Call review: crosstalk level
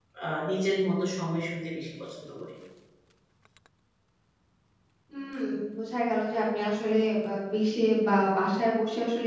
none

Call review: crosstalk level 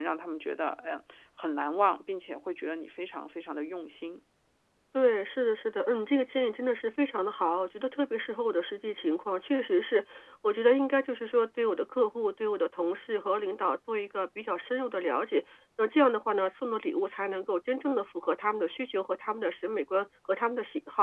none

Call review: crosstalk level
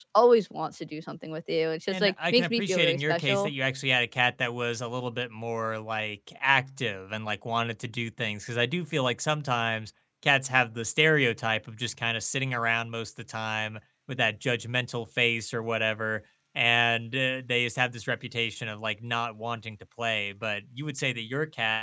present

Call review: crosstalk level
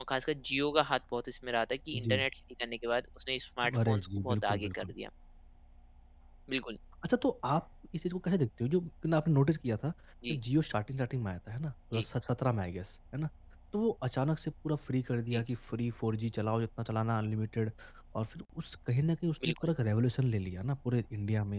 present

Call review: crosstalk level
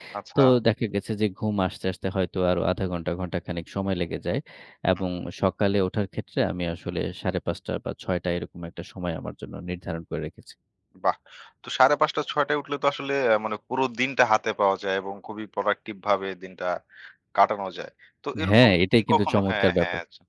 present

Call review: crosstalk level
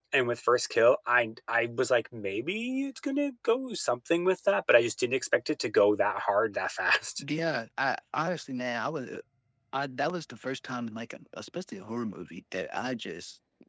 none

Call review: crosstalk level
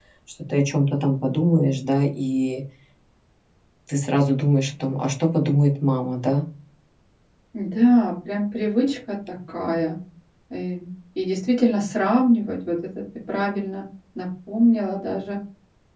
none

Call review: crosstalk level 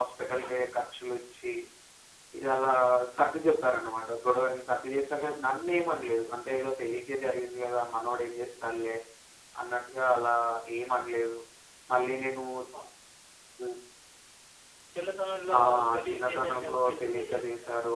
present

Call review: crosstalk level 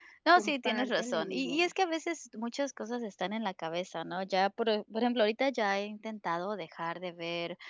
present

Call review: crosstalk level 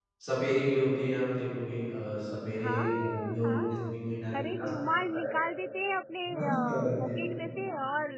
present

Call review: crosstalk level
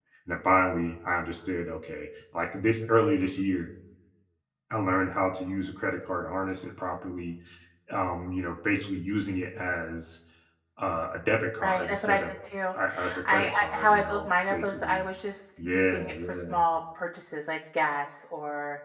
present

